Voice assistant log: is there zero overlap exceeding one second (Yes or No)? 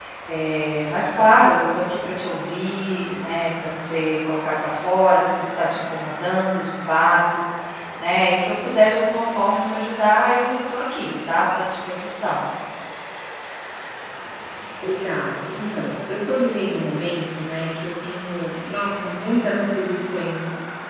Yes